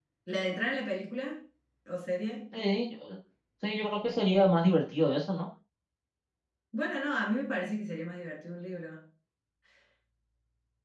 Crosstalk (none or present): none